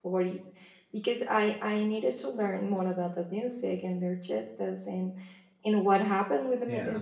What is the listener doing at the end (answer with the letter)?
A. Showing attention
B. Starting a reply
A